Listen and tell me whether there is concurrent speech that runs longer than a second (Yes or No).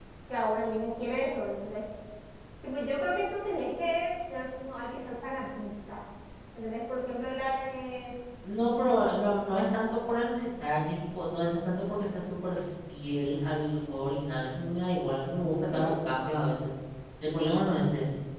No